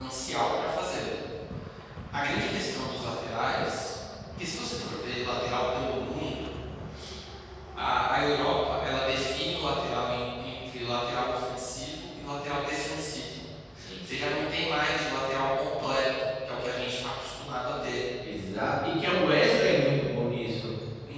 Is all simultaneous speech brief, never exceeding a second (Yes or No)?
Yes